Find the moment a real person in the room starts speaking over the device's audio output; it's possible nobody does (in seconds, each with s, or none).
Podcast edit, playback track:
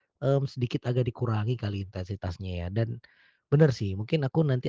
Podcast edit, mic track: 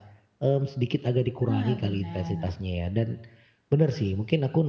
1.5 s